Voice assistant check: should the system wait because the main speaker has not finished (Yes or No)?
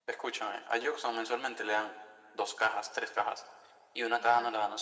Yes